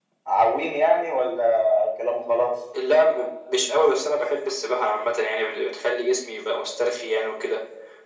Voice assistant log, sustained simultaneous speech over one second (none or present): none